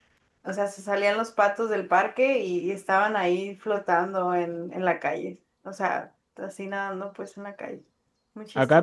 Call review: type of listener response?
taking over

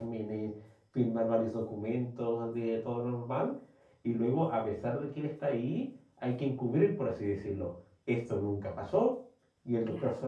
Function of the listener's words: listening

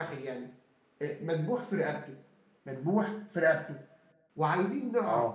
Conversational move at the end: listening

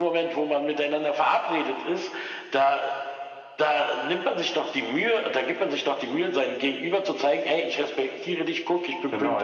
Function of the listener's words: taking over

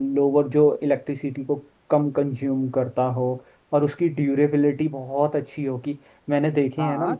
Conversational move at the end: taking over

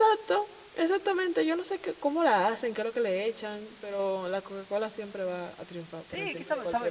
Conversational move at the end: taking over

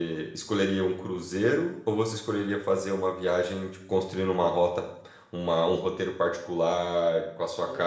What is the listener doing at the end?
taking over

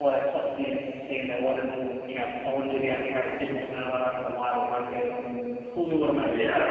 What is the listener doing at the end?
listening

